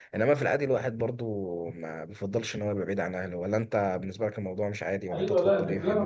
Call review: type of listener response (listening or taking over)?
taking over